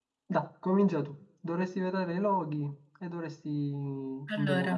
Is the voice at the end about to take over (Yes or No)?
No